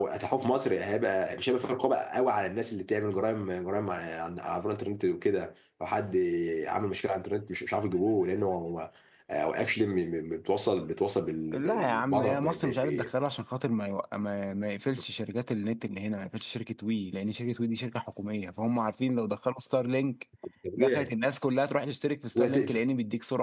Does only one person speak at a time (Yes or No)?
No